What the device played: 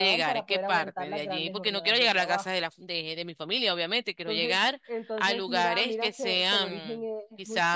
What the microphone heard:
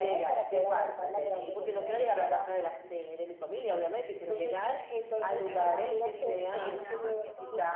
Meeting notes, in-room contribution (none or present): present